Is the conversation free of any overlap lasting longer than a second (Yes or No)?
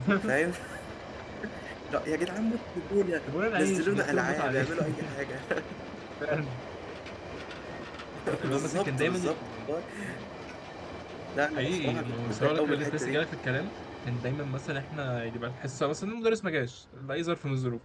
No